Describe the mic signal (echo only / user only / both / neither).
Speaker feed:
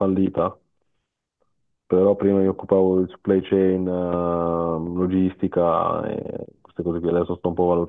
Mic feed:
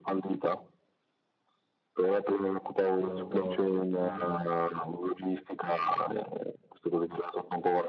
both